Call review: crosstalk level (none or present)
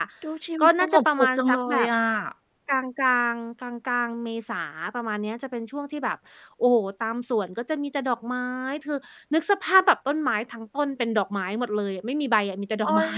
present